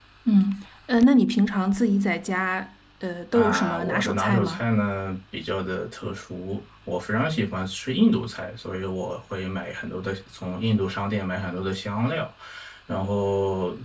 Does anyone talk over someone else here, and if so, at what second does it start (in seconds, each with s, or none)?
3.3 s